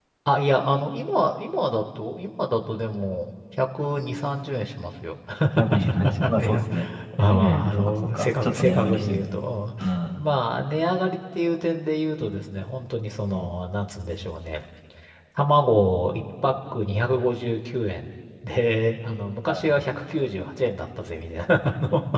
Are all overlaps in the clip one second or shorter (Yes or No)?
No